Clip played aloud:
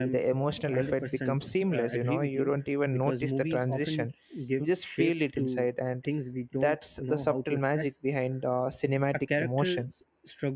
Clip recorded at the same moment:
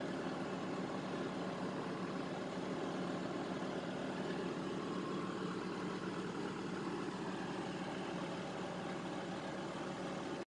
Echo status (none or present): none